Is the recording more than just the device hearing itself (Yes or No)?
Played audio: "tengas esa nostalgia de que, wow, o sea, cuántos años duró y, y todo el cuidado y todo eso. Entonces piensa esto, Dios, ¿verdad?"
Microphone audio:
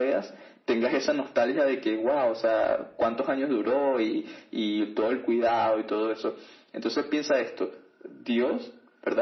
No